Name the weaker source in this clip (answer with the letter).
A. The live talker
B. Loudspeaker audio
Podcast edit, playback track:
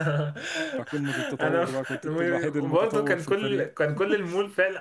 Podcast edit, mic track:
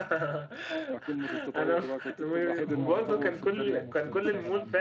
A